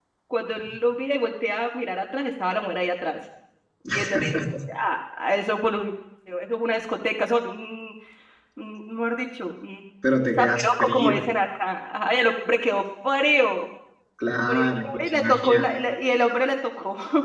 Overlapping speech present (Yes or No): Yes